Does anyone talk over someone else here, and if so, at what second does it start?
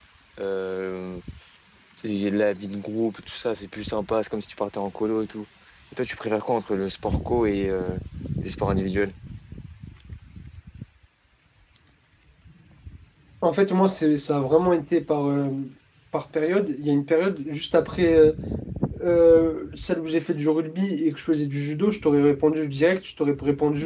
none

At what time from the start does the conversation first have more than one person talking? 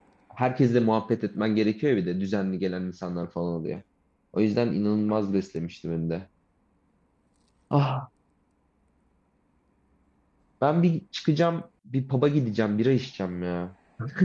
none

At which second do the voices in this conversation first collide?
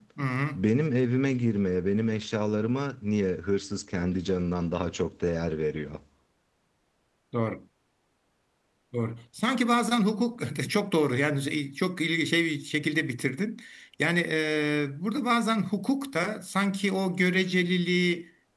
none

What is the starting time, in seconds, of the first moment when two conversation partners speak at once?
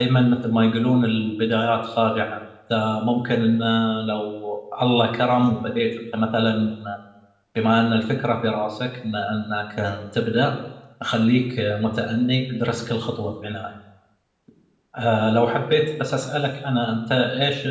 none

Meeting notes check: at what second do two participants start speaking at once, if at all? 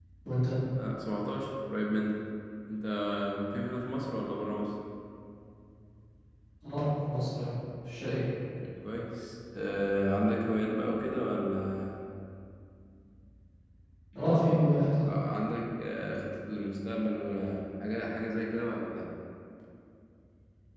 none

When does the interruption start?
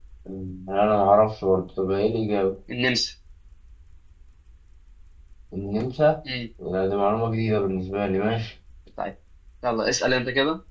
none

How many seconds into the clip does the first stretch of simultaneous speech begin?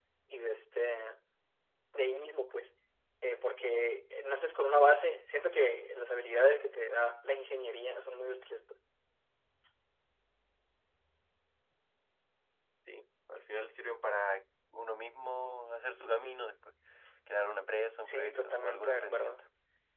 18.1 s

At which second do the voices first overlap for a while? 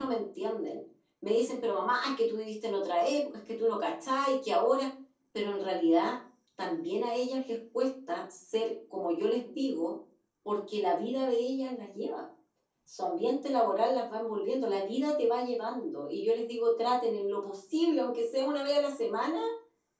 none

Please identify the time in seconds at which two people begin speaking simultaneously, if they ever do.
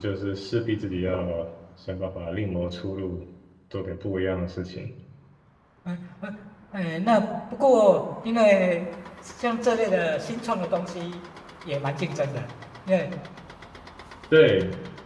none

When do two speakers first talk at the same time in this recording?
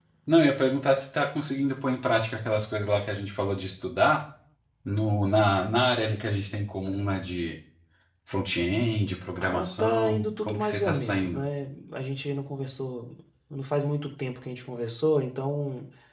9.4 s

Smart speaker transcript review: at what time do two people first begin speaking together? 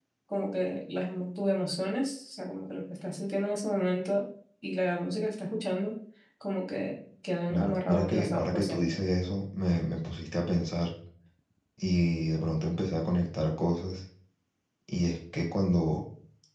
7.5 s

